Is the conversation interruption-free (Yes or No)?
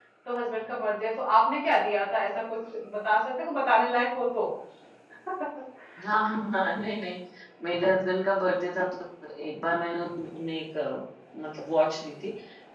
Yes